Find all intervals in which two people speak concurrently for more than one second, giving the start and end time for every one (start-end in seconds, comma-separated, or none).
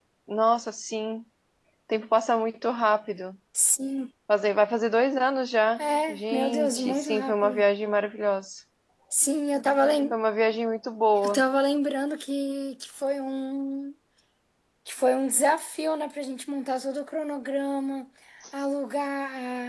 6.1-7.6